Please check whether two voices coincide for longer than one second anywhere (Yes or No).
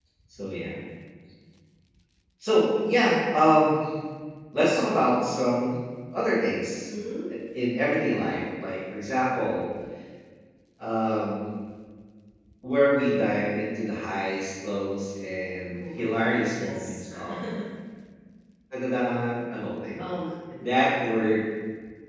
Yes